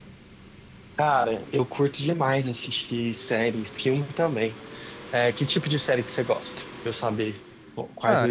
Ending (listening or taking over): taking over